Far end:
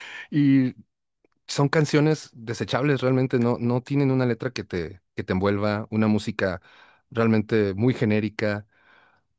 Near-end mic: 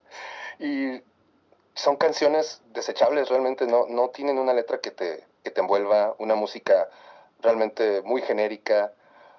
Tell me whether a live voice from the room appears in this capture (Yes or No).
No